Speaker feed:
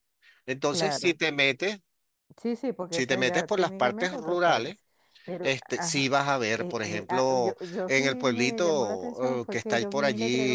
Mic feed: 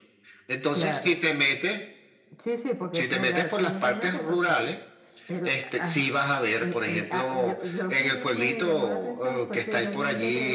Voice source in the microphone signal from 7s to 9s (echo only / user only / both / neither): echo only